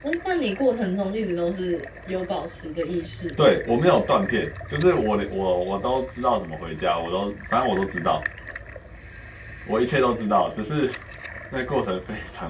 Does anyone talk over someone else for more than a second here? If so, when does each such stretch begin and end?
none

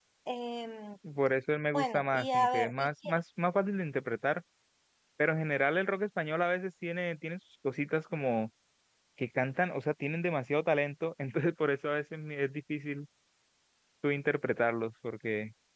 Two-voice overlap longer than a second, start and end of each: 1.7-3.1

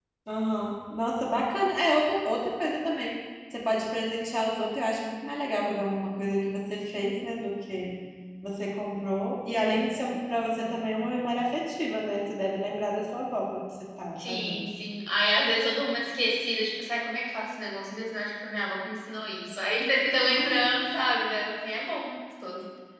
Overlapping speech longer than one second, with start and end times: none

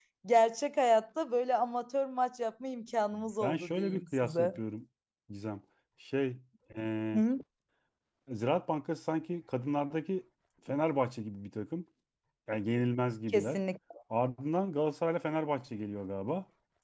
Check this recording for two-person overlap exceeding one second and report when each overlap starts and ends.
3.1-4.6

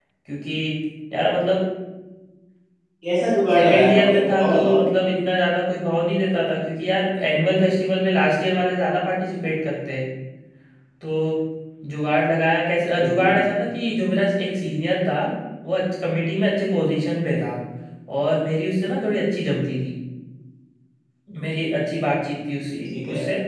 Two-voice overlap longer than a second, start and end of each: 3.5-4.8

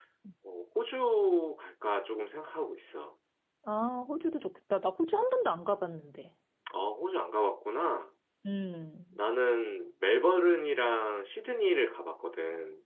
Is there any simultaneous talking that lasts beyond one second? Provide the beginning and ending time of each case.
none

